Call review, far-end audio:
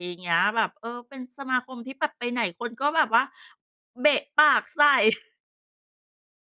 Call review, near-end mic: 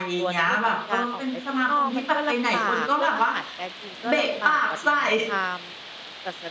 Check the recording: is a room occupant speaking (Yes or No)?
Yes